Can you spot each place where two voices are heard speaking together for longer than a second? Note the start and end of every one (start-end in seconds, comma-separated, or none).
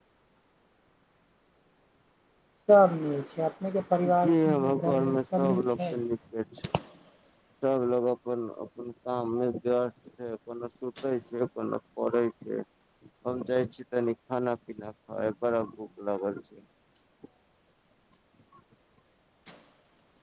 4.2-5.9